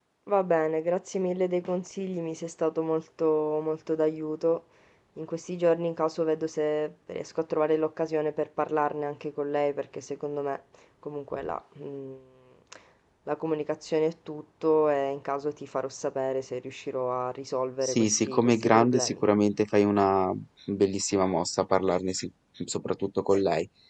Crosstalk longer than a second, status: present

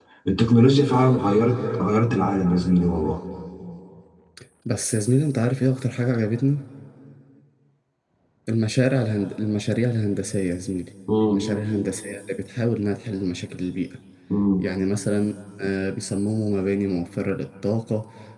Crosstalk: none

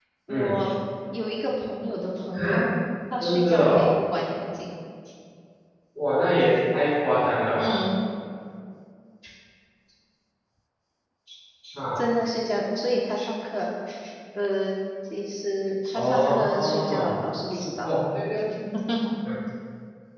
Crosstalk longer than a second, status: present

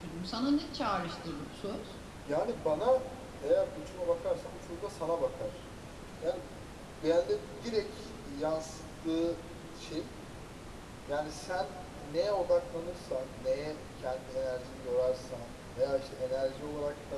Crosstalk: none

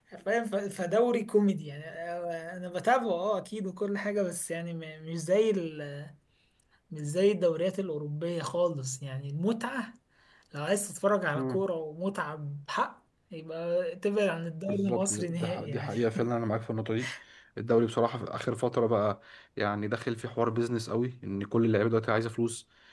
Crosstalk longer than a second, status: present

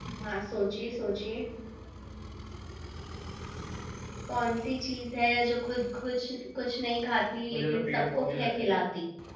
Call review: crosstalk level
present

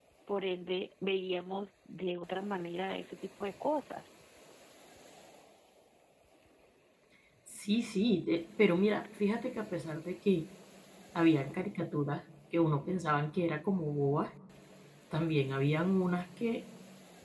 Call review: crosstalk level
none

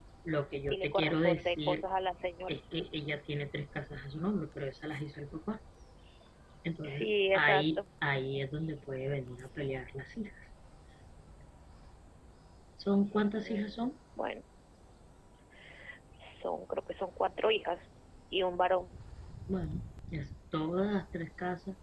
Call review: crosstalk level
present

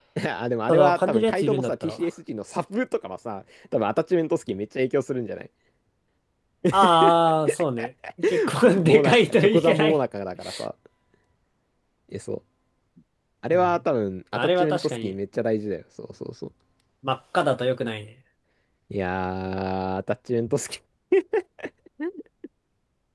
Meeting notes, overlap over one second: present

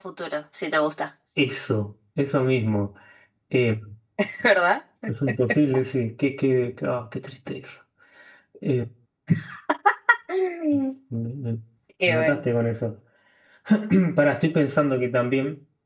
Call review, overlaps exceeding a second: none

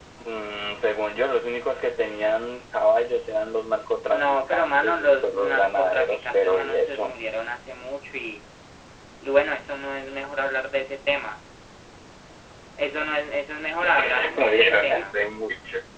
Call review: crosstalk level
present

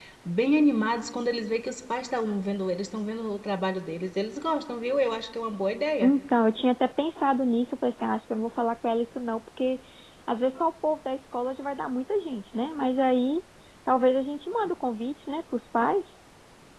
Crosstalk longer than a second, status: none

